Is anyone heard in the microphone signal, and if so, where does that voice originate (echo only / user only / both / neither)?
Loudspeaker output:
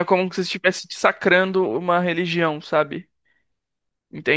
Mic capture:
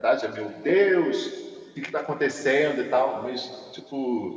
user only